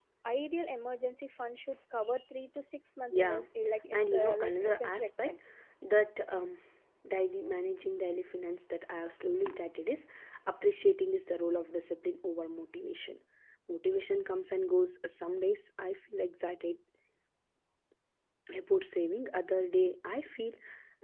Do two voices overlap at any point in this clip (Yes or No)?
Yes